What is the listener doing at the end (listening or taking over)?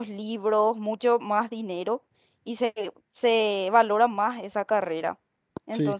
listening